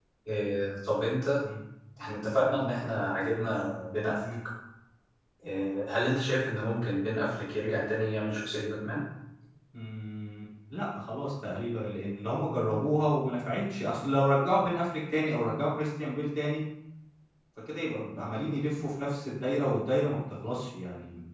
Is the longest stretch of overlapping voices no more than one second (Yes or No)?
Yes